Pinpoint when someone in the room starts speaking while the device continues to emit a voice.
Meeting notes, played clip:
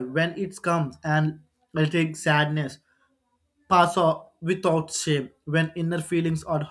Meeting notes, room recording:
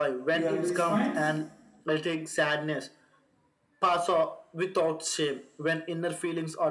0.3 s

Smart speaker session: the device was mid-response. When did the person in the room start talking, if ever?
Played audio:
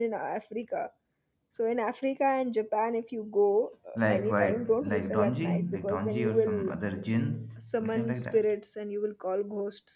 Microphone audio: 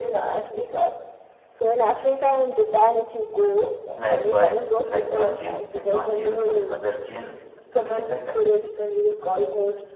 none

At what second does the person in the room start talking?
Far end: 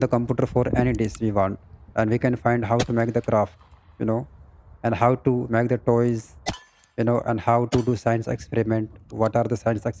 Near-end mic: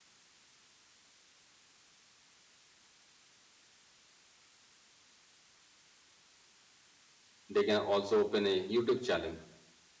7.5 s

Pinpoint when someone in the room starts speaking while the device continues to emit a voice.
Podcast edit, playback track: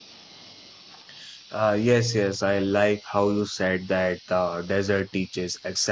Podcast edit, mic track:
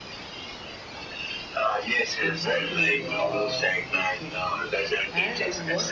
2.2 s

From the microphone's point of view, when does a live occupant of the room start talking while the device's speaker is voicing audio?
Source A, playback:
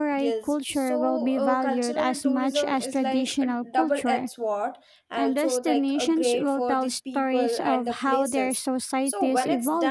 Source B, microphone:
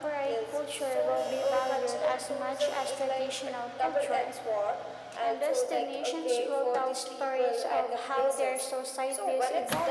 none

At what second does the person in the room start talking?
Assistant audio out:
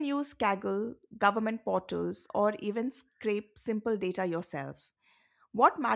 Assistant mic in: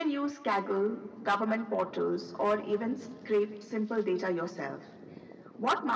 none

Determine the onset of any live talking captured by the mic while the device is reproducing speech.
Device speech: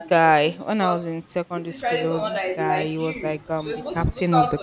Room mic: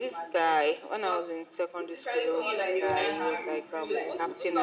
2.4 s

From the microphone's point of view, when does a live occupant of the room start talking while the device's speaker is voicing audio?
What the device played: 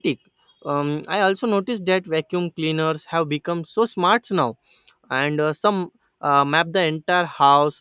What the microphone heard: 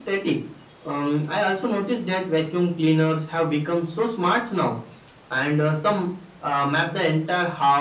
none

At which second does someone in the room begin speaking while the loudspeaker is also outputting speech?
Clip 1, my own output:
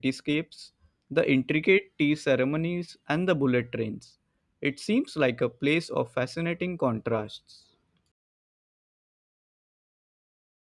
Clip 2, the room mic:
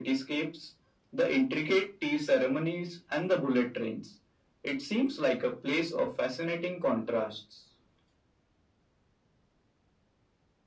none

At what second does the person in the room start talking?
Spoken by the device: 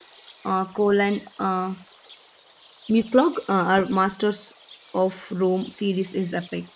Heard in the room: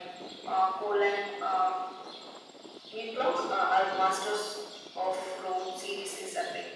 none

